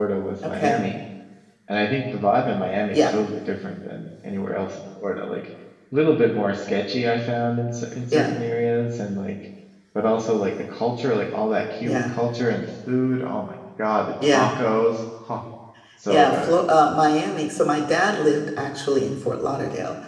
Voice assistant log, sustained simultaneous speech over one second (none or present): none